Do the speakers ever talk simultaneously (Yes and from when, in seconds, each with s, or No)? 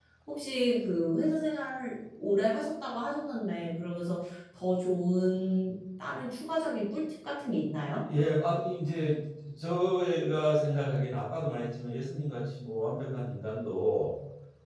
No